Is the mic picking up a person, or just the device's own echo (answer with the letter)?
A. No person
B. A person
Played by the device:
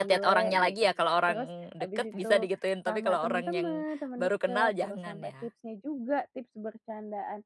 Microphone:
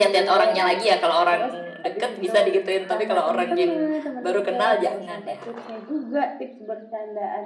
A